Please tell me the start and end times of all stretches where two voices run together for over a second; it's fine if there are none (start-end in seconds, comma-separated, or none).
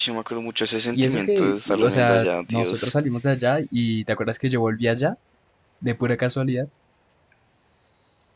0.9-2.9